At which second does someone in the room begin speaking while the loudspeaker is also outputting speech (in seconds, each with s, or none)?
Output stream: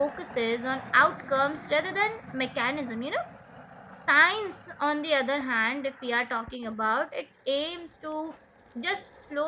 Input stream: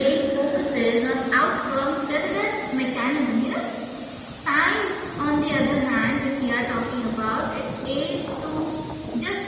none